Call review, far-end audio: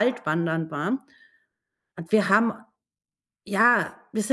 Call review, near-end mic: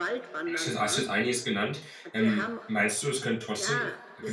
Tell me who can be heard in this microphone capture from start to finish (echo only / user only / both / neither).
both